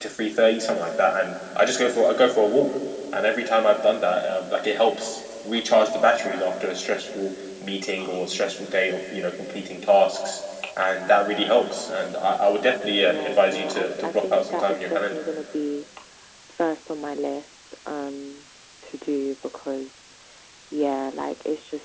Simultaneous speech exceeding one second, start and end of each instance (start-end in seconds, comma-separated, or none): 13.0-15.2